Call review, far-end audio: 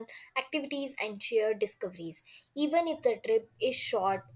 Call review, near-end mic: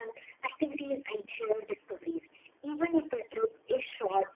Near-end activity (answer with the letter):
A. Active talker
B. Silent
B